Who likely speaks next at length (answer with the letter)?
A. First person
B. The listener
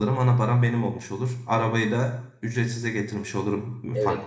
B